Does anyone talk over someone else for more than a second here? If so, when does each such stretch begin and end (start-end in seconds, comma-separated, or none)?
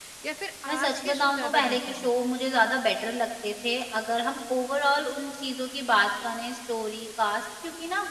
0.7-2.1